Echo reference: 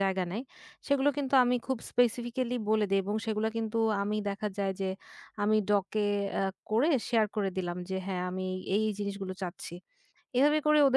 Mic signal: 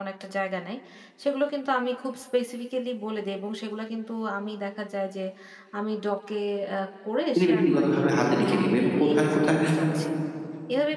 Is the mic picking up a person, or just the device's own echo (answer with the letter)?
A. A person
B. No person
A